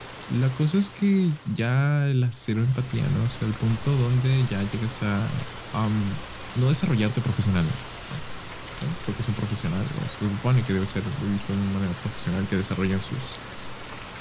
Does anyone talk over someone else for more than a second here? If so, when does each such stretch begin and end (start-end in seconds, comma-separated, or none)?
none